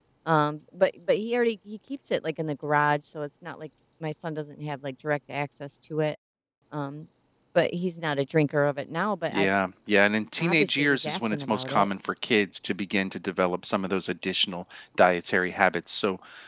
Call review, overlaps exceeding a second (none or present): present